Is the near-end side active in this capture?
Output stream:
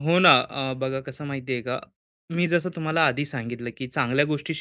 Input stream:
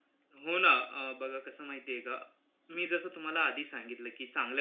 No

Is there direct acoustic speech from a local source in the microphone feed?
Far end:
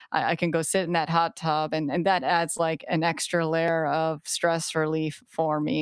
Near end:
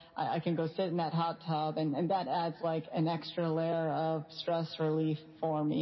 No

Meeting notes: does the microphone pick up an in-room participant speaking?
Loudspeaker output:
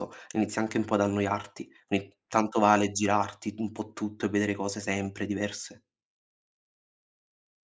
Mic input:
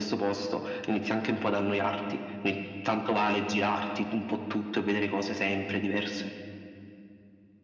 No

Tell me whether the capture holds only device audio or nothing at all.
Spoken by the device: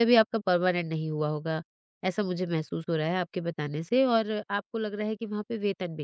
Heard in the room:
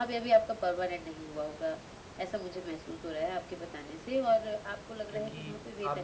No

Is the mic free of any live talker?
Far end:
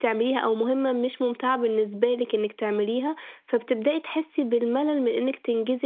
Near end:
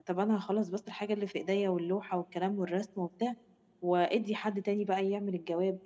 No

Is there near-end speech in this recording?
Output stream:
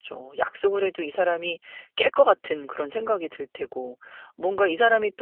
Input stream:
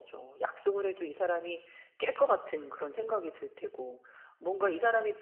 No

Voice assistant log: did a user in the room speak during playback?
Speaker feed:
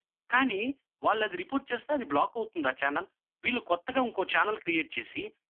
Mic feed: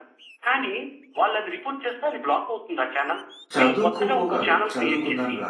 Yes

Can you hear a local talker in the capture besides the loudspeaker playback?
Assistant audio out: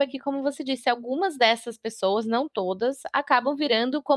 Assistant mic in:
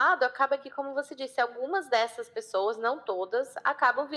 No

